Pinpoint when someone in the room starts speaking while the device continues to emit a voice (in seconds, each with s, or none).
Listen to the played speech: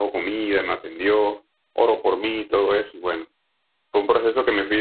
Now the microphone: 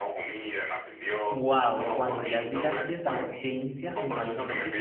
1.3 s